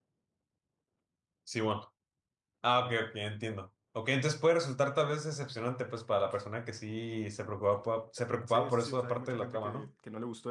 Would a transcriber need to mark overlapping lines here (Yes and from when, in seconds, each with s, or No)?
Yes, from 8.5 s